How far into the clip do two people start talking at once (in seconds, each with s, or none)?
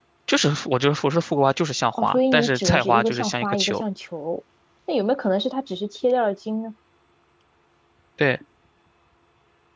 2.0 s